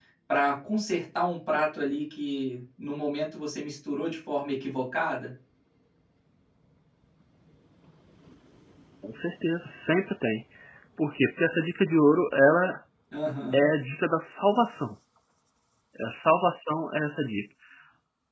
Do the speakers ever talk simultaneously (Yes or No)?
No